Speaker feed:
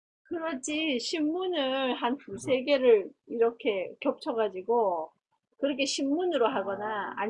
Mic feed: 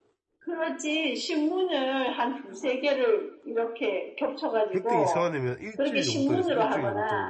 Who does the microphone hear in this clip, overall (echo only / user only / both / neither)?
both